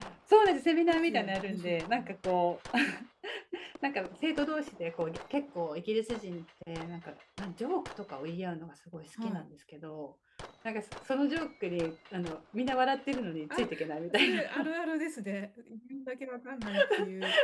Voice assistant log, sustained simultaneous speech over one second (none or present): present